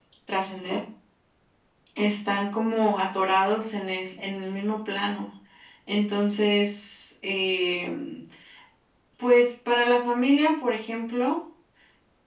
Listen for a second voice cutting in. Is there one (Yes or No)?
No